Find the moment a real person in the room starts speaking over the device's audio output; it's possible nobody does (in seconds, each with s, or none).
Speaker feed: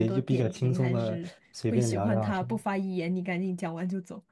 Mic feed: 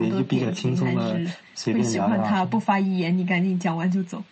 none